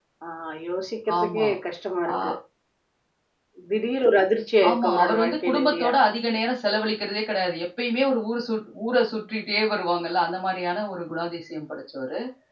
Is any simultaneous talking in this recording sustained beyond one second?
Yes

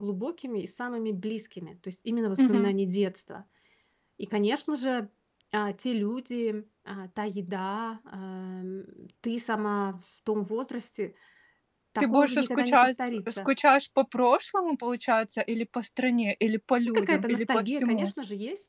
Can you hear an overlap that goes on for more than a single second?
Yes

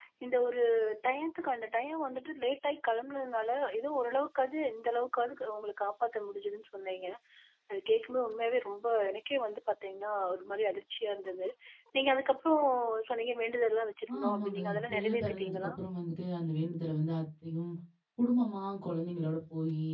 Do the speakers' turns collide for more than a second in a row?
Yes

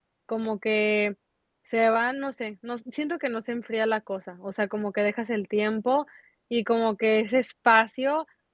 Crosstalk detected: No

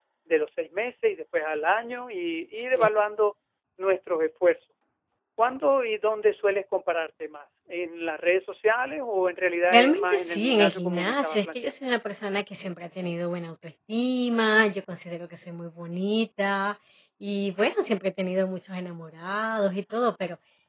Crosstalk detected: Yes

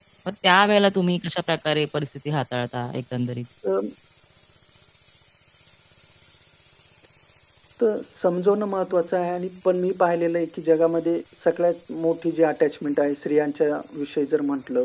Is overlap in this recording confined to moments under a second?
Yes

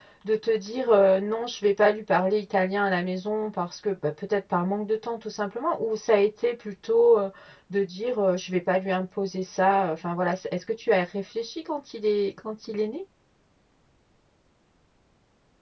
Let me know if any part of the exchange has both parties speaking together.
No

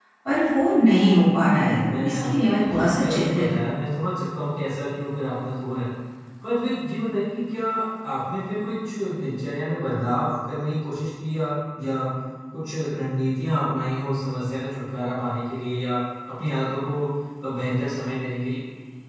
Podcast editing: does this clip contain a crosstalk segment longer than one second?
Yes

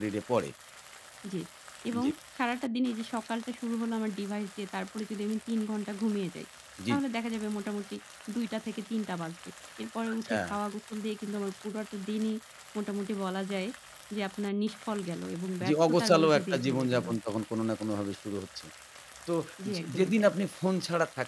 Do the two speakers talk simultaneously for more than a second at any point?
Yes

